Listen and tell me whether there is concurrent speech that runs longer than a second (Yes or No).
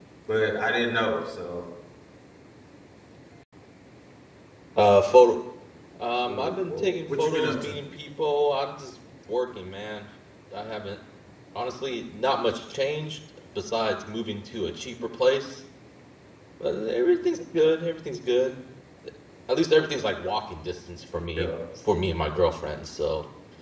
Yes